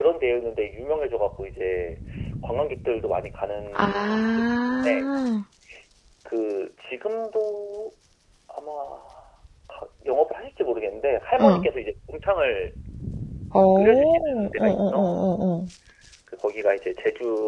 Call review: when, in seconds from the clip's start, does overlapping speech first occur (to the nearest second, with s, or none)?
4 s